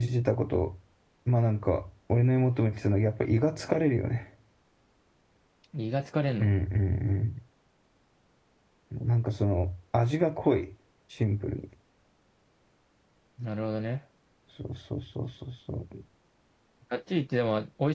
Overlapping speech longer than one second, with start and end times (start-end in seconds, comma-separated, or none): none